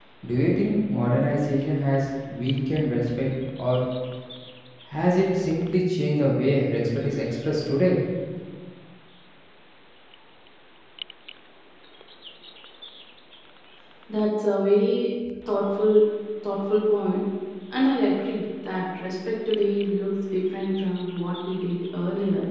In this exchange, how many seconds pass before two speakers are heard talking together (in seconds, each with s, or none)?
none